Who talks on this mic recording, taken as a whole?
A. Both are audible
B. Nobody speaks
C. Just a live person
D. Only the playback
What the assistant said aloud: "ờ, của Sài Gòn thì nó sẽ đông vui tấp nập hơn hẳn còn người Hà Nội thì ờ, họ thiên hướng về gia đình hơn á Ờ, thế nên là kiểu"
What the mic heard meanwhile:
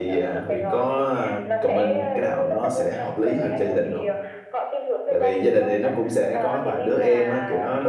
A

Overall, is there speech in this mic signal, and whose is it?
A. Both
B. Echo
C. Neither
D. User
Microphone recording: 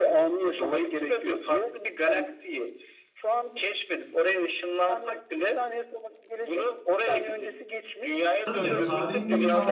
A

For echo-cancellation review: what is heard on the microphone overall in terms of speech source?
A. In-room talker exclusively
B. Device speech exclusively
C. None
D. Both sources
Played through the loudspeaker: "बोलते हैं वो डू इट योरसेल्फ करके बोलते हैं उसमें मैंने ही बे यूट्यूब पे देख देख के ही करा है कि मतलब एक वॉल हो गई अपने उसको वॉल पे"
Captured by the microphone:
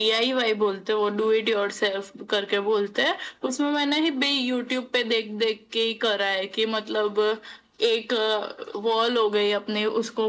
B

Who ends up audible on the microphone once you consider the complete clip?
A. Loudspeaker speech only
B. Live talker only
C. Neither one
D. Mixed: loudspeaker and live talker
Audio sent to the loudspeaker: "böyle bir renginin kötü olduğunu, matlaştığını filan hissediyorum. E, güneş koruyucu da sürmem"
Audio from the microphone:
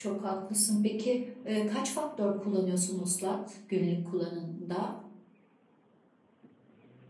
B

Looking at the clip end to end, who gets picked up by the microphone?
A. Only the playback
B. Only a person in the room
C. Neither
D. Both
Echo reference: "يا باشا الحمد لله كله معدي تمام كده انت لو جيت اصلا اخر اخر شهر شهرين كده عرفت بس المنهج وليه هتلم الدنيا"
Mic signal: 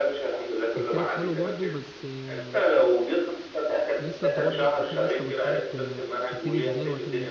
D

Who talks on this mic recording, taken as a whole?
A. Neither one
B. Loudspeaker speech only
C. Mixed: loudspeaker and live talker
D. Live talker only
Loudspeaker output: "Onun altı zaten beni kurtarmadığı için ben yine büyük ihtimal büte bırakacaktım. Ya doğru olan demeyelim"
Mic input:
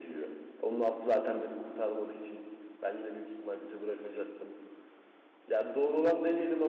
B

